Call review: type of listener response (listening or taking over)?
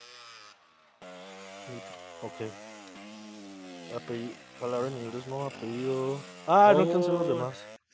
taking over